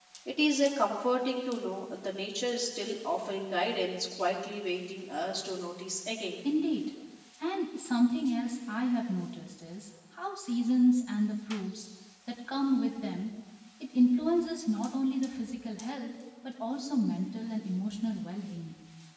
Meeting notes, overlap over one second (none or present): none